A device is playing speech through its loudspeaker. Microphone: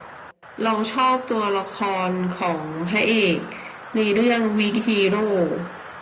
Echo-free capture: No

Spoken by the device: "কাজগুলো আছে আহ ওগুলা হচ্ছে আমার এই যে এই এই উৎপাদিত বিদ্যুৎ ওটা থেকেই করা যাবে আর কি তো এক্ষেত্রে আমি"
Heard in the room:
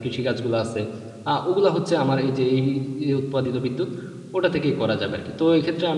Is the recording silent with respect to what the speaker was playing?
No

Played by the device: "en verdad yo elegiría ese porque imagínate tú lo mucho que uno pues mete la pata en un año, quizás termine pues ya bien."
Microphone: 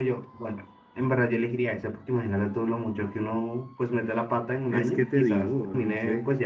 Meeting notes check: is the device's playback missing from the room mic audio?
No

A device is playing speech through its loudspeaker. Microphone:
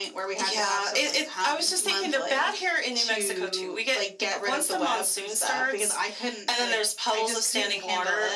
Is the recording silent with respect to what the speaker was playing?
No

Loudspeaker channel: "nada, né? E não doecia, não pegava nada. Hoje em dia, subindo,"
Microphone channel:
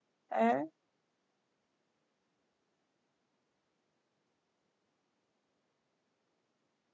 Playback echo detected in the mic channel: No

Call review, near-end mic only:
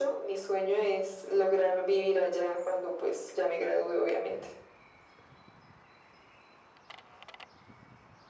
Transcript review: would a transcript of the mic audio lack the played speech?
No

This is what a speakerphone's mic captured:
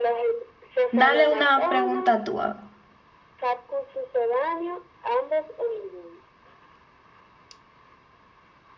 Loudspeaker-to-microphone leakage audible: Yes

